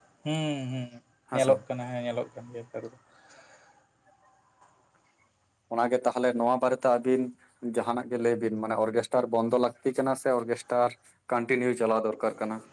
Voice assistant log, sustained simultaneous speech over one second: none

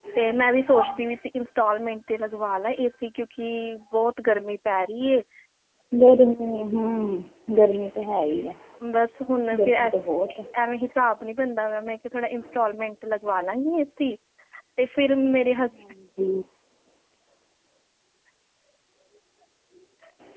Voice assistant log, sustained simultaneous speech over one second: none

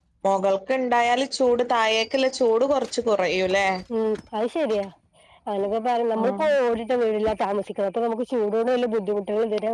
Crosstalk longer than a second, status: none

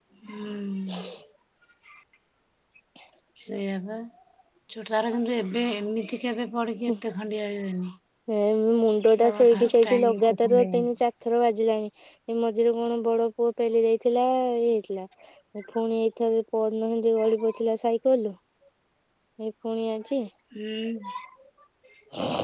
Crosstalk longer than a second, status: present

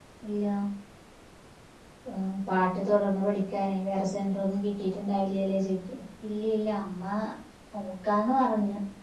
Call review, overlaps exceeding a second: none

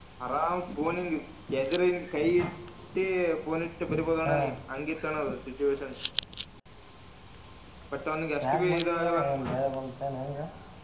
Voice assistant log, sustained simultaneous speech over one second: present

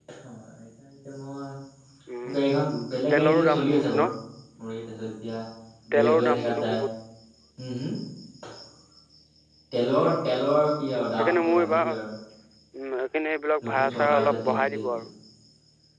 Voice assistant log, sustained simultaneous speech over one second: present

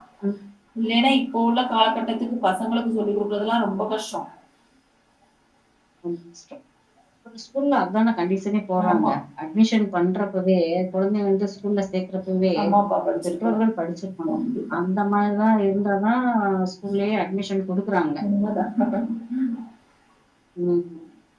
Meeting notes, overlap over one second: none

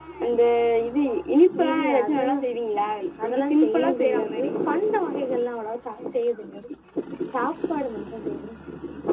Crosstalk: present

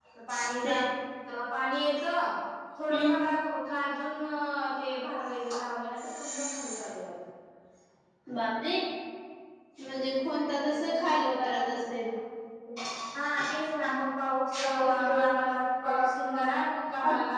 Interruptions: present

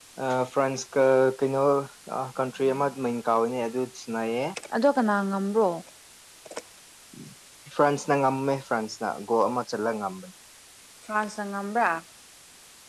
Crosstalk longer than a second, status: none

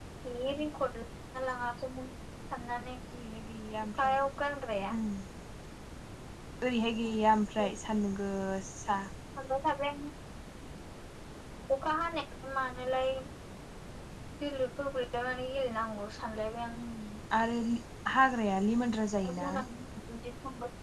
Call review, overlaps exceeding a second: none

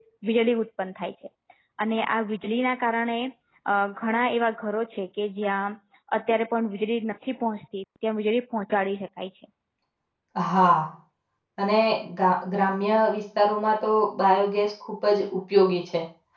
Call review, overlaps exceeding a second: none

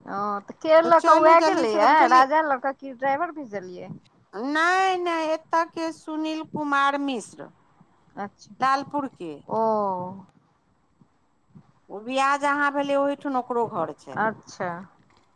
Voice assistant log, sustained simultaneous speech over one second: present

